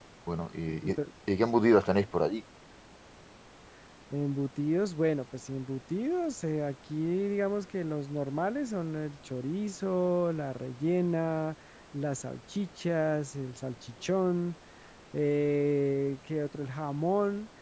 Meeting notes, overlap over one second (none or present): none